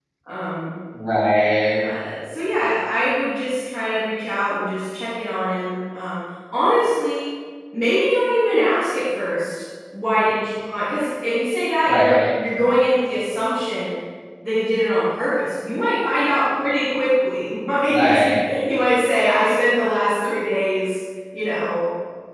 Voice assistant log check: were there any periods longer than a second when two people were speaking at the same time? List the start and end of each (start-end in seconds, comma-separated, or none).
none